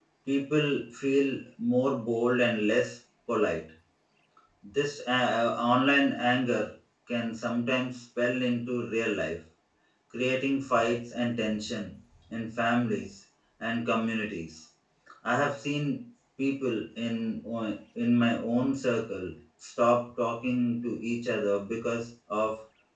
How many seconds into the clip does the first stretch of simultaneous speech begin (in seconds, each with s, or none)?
none